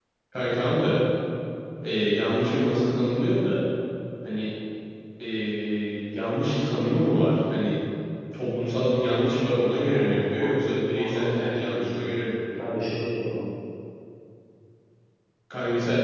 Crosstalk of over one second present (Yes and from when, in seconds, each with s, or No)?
Yes, from 9.6 s